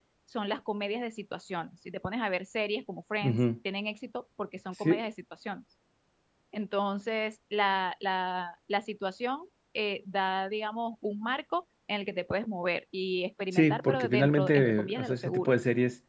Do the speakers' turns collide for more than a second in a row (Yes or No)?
Yes